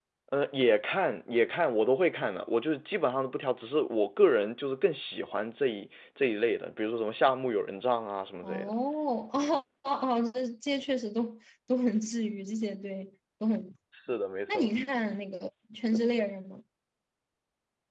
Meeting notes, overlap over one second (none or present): none